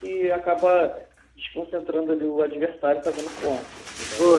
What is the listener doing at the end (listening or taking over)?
taking over